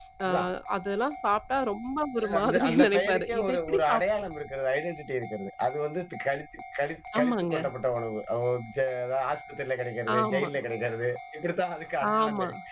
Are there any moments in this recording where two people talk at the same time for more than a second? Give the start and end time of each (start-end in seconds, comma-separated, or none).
2.2-4.0